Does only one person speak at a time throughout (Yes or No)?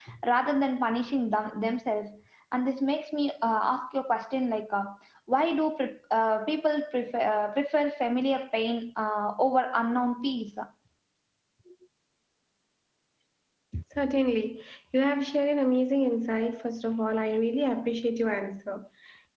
Yes